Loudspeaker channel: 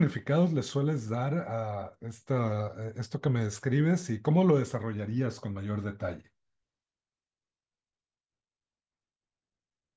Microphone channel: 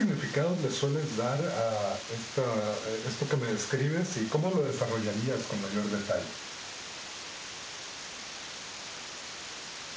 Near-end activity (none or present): none